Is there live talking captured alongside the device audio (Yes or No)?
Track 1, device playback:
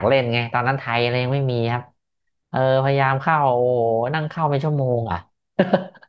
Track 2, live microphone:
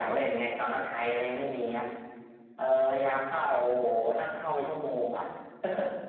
No